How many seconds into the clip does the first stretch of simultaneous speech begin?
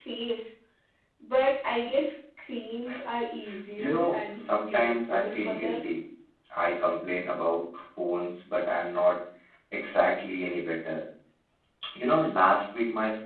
3.8 s

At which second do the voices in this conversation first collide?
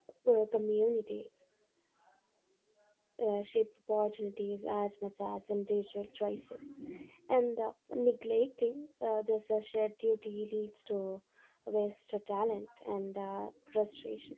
none

